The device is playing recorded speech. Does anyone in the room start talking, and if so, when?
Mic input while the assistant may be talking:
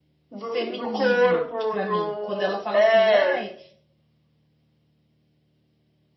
0.4 s

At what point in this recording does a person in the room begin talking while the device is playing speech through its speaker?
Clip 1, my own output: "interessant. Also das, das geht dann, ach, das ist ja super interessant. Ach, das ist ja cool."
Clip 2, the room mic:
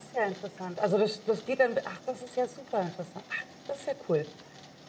none

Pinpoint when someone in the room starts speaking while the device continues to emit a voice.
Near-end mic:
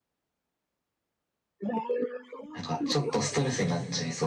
2.5 s

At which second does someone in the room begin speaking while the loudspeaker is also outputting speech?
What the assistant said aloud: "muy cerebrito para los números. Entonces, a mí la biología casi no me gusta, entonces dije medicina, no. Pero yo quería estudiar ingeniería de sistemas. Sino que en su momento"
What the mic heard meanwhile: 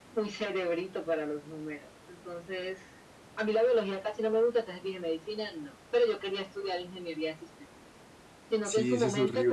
8.6 s

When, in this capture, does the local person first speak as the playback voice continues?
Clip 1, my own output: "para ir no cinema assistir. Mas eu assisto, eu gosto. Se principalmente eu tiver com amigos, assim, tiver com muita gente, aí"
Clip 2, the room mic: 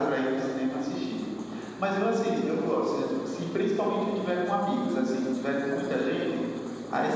none

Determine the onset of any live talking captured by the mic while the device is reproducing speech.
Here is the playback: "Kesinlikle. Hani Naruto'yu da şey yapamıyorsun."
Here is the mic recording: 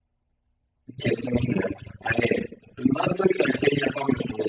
none

